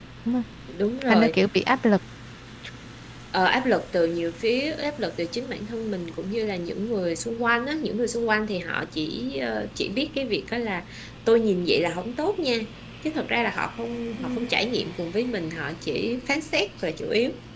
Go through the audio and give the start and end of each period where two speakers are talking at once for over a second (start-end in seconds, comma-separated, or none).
none